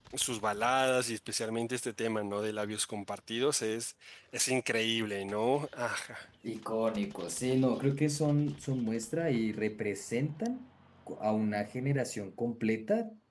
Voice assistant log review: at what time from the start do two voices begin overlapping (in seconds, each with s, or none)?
none